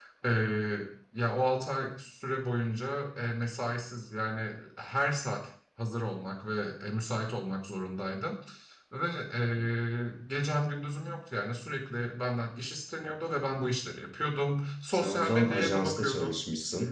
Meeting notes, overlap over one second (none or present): present